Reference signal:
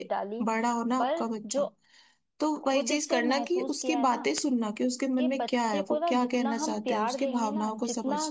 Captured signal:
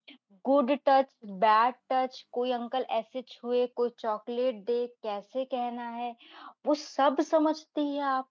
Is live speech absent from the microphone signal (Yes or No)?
No